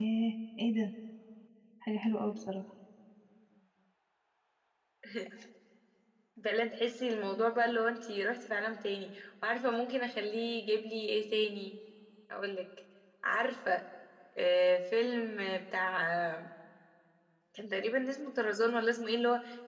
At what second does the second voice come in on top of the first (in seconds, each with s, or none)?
none